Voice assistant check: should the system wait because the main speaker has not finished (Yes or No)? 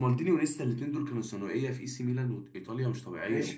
No